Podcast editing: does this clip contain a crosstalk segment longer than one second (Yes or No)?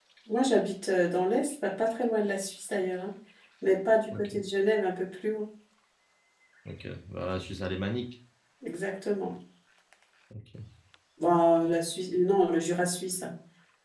No